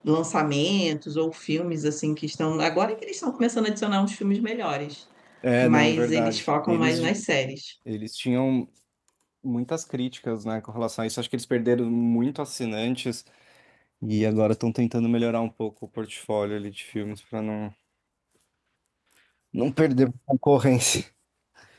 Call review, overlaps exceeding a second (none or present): present